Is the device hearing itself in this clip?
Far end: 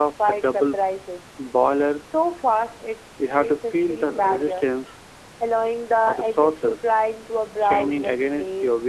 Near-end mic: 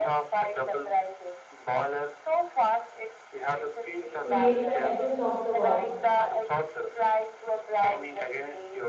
Yes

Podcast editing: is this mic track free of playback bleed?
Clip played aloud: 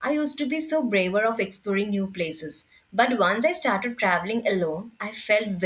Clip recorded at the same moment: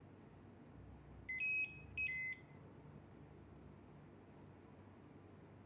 Yes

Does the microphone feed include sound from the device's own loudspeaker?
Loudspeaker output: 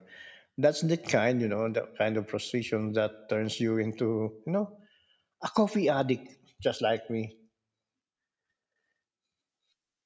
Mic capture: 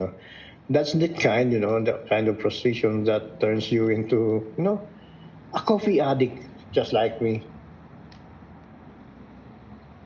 Yes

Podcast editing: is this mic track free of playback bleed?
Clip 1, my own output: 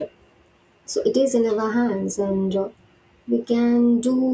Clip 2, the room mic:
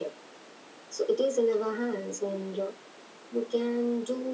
No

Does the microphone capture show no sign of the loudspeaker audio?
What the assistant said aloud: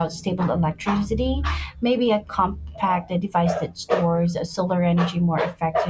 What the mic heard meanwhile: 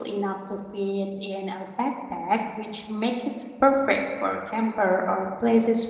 Yes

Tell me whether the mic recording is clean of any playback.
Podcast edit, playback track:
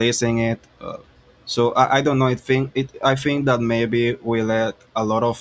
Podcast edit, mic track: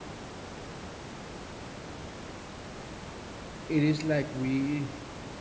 Yes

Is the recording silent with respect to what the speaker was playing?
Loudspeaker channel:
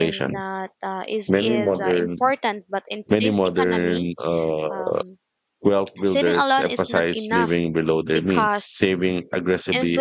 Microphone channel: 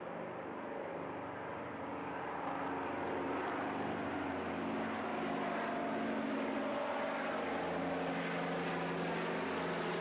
Yes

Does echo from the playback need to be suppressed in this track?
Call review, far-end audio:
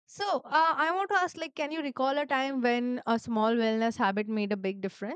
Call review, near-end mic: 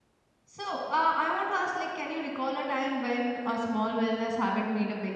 Yes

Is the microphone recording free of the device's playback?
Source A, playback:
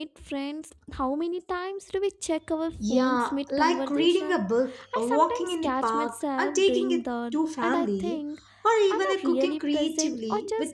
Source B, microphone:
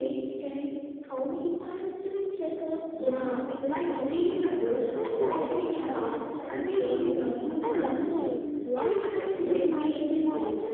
No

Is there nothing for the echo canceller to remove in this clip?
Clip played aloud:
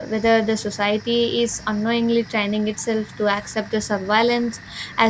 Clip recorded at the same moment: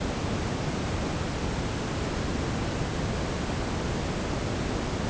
Yes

